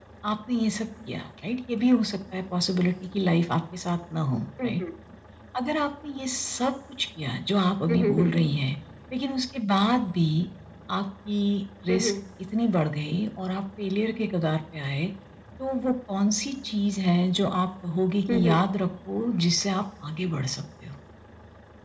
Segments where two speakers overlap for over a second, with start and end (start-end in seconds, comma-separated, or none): none